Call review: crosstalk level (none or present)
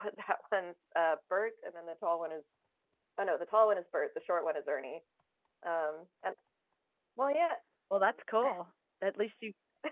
none